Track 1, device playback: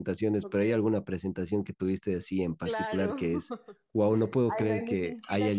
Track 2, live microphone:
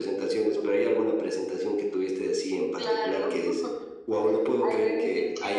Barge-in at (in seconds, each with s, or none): none